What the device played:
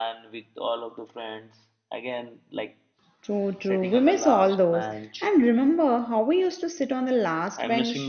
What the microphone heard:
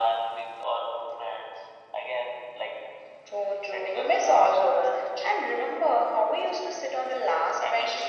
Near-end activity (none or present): none